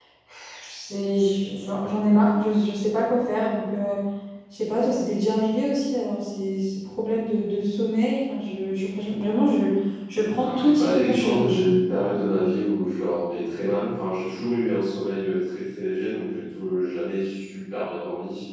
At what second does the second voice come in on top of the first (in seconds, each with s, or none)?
10.4 s